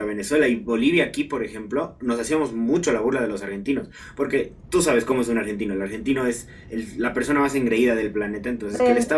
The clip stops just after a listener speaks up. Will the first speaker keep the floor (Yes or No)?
Yes